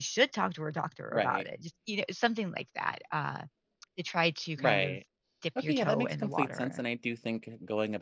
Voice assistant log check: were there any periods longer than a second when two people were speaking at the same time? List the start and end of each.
5.6-6.8

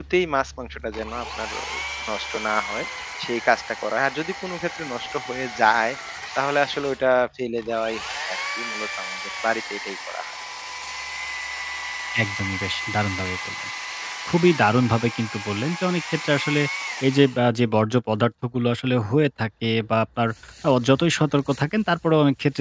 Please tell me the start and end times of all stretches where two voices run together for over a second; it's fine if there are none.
none

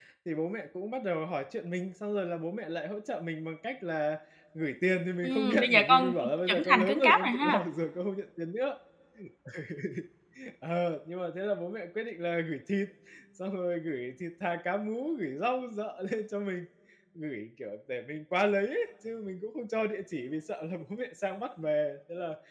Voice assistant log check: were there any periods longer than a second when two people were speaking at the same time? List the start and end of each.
5.2-7.6

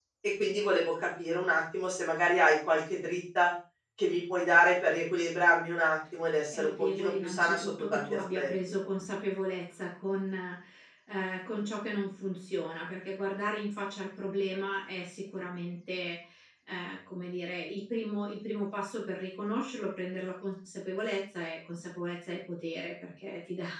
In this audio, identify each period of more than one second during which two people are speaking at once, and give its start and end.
6.5-8.5

